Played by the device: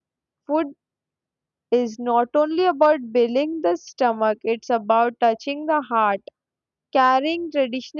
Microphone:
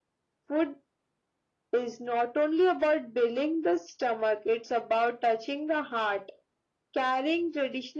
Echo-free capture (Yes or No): No